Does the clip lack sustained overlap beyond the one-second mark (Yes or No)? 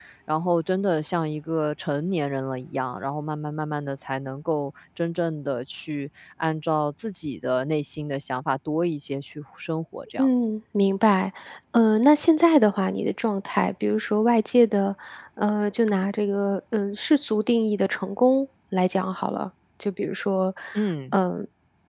Yes